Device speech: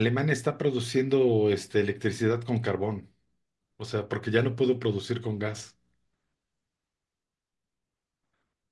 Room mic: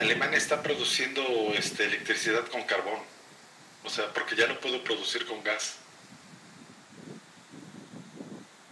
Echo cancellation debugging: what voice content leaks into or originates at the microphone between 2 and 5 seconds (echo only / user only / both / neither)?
echo only